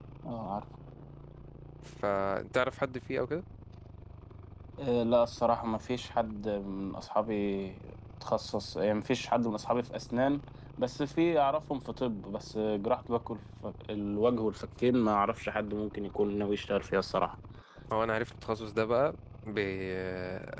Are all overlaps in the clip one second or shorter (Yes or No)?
Yes